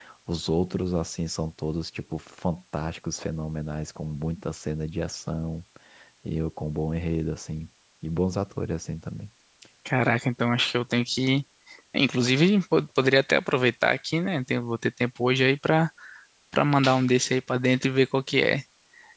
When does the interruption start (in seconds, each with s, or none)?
none